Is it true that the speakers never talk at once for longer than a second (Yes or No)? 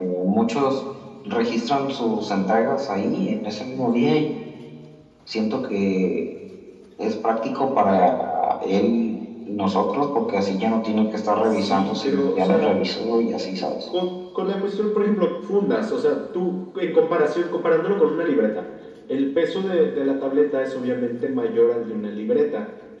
No